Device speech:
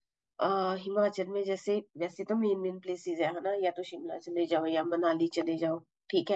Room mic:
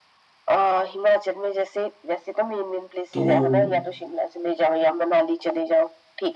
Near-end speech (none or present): present